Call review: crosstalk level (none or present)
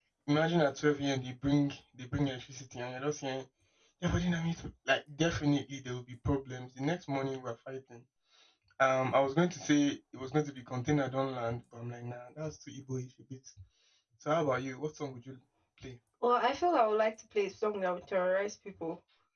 none